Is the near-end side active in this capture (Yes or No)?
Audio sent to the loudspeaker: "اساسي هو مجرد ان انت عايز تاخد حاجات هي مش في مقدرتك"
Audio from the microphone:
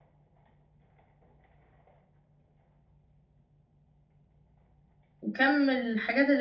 Yes